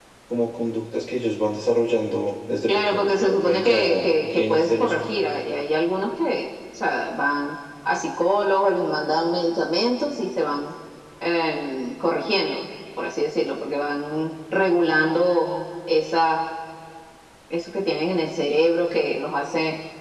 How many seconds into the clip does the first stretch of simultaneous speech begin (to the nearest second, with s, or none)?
3 s